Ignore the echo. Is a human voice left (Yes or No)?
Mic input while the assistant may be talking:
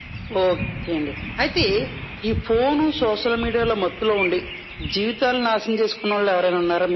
No